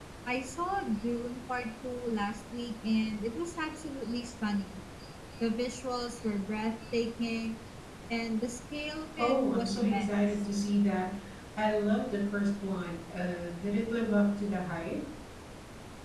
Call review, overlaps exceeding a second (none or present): present